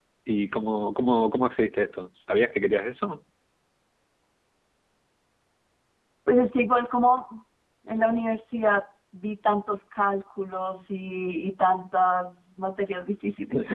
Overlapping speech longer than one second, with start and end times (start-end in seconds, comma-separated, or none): none